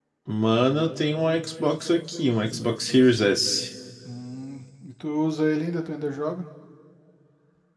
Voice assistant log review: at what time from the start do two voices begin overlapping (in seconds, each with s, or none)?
none